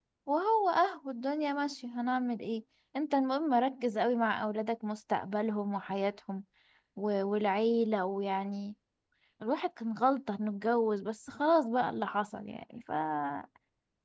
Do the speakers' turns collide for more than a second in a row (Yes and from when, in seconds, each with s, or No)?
No